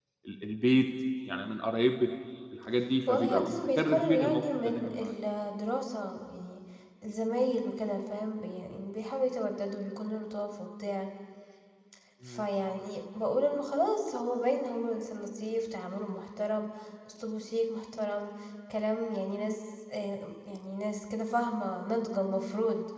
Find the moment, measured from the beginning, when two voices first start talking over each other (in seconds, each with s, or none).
3.1 s